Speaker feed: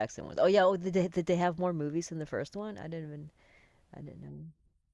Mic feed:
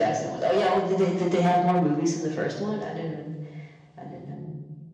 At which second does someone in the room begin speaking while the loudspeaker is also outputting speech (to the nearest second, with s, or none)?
none